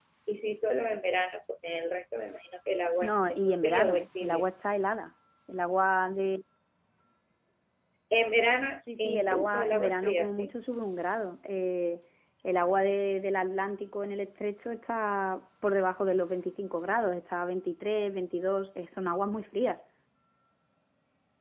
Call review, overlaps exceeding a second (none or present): present